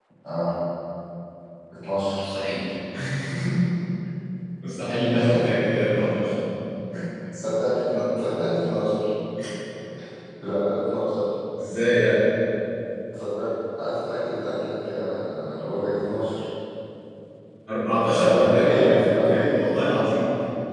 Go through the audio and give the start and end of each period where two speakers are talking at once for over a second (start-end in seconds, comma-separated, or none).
18.1-19.6